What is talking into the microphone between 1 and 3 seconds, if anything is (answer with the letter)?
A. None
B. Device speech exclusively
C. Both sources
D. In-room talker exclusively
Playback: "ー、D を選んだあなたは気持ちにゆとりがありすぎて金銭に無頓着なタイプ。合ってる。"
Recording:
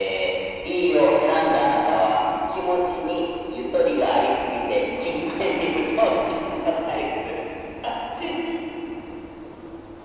B